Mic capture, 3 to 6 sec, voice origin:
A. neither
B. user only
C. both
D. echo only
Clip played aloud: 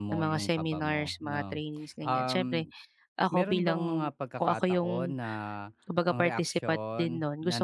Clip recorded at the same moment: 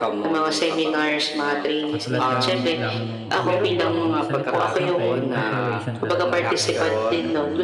C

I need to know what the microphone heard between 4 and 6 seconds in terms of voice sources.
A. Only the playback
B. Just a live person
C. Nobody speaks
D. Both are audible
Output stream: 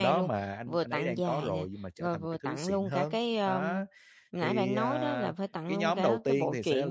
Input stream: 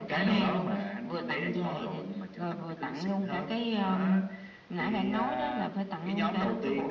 A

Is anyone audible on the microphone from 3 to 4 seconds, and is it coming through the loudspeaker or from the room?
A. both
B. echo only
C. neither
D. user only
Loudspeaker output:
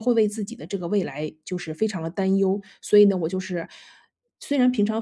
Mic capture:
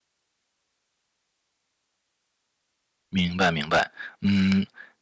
D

